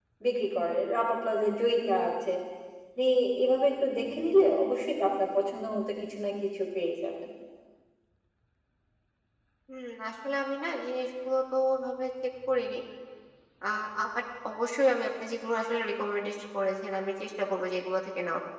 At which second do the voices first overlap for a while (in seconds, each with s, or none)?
none